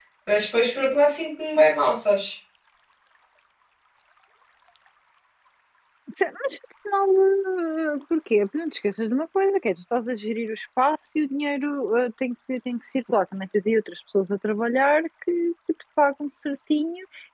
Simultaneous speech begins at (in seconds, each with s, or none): none